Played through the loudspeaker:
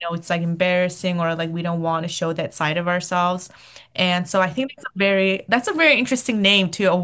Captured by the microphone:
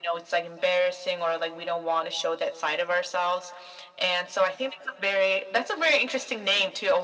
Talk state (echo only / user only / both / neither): echo only